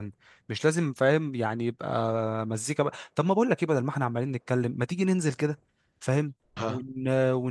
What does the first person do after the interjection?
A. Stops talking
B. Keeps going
B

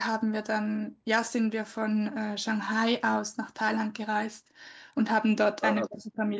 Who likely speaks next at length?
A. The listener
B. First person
B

